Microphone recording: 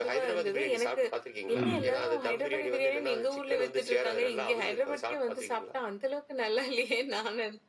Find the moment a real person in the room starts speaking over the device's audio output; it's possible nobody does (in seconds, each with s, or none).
1.5 s